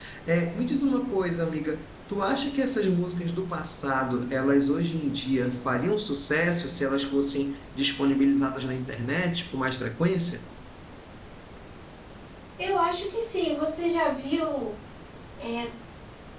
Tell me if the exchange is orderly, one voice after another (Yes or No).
Yes